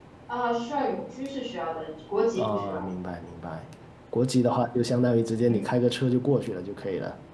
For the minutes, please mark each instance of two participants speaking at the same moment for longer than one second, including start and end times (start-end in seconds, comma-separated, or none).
none